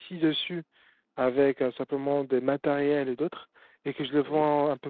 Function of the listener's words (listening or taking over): listening